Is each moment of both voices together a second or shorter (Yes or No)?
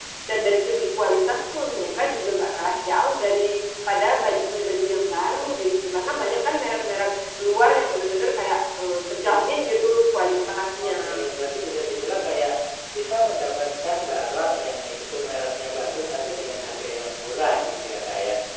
Yes